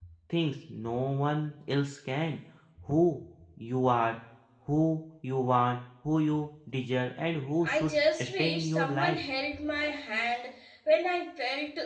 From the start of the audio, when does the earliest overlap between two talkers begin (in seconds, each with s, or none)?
7.6 s